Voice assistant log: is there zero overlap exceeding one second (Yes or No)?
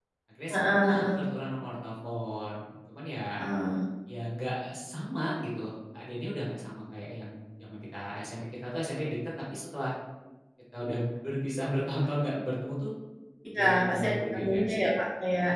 No